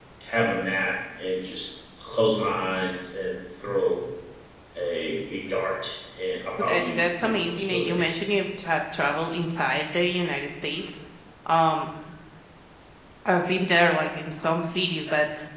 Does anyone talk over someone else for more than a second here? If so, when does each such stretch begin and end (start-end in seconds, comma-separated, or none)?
6.6-8.0